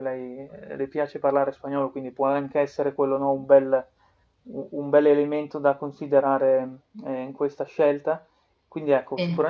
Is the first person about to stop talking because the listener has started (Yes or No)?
No